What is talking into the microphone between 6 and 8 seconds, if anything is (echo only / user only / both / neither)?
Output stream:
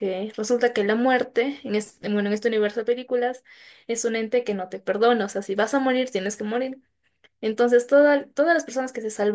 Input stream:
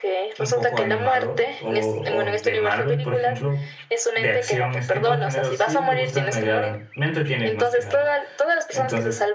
both